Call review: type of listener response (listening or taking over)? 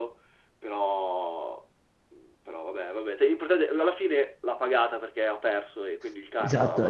taking over